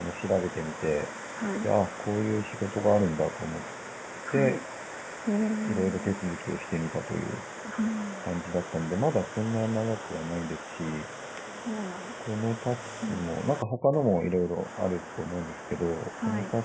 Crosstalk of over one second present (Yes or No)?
No